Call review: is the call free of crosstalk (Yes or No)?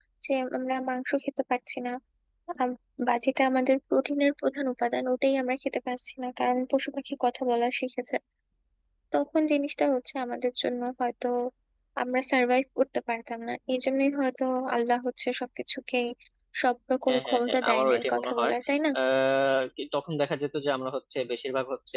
No